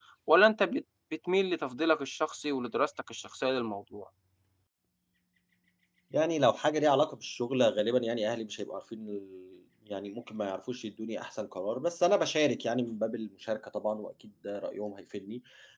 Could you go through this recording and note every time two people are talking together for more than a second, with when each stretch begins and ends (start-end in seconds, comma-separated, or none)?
none